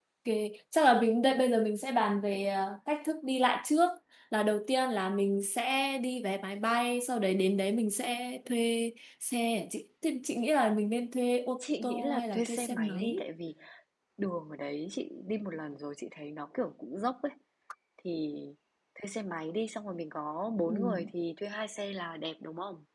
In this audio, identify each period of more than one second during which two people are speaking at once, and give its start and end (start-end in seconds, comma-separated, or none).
11.6-13.2